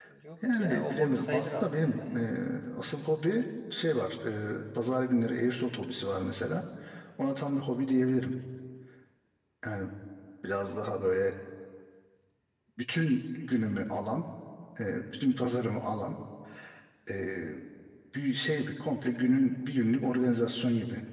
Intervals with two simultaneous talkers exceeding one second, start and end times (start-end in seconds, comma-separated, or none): 0.5-2.3